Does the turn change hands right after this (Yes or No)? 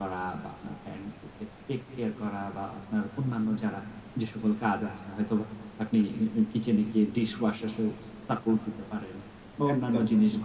No